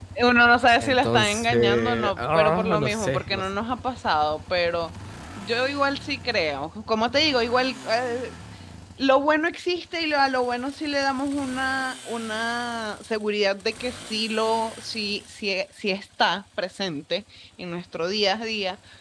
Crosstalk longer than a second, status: present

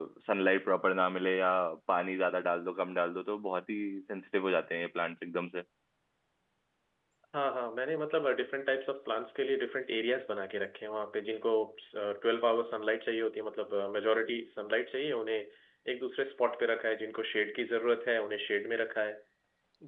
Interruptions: none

